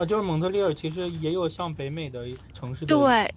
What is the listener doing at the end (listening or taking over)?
taking over